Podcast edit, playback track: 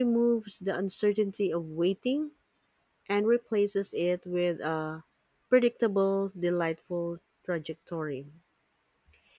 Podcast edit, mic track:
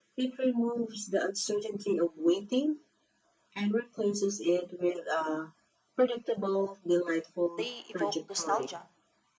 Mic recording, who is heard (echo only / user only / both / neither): both